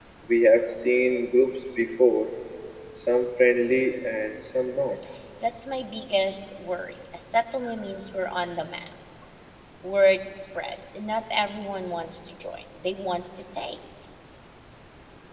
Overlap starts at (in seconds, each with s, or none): none